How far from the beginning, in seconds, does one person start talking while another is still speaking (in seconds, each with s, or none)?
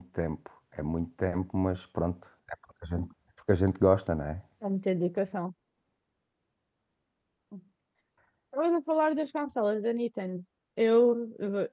none